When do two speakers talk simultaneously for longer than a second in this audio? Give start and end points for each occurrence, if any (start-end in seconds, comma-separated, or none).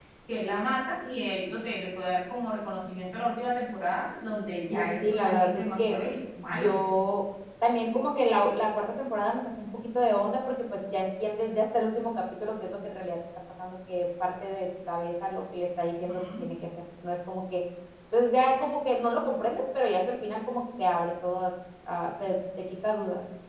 4.7-6.0